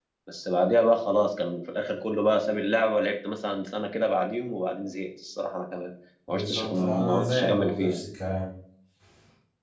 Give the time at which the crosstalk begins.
6 s

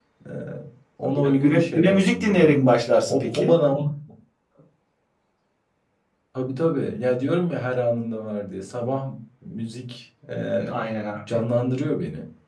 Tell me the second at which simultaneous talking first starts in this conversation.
1 s

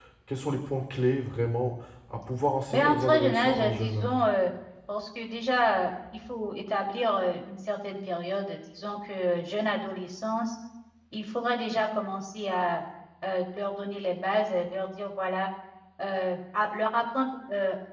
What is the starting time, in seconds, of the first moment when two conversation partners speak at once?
3 s

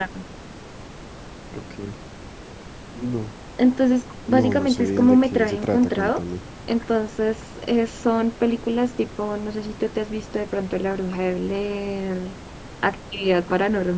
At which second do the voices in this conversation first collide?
4 s

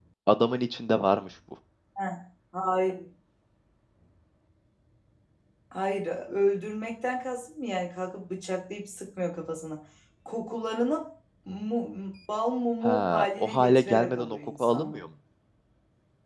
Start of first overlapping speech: 13 s

